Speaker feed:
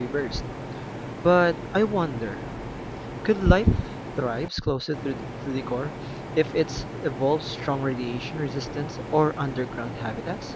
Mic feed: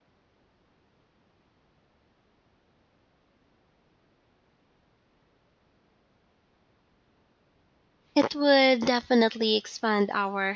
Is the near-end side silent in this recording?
No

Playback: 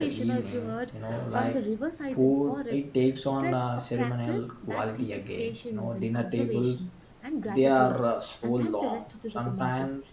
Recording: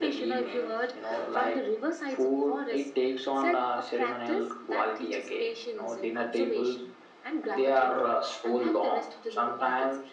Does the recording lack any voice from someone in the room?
Yes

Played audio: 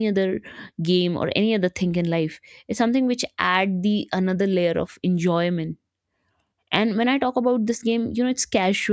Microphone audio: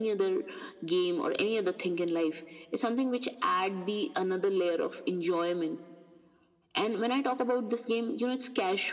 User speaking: No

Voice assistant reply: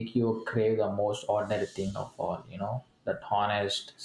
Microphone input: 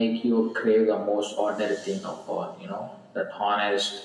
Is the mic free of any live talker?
Yes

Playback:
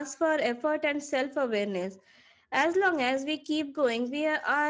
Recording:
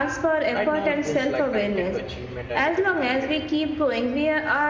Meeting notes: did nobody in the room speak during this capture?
No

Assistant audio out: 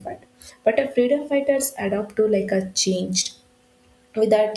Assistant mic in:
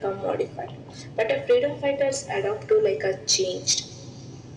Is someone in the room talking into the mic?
No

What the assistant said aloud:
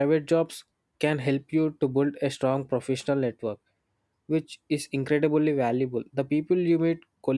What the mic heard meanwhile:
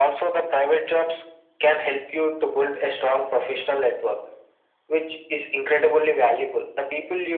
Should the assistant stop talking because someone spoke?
No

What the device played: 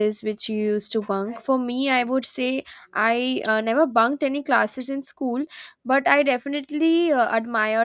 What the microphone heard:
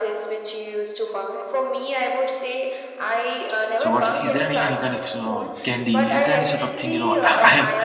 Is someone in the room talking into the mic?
Yes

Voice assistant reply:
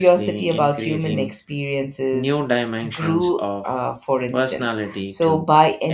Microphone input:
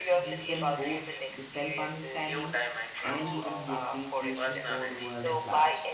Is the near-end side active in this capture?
Yes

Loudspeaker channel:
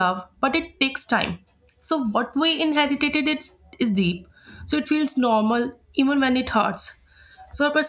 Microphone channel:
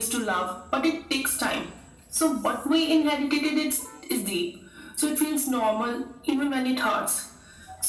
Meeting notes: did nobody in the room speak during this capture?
Yes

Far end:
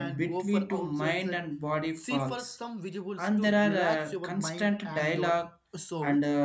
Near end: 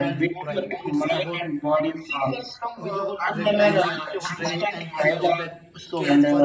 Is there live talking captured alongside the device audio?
Yes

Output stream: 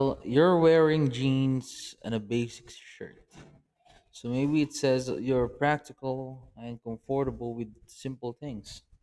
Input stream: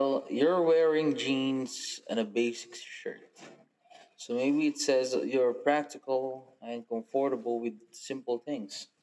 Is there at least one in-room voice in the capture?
No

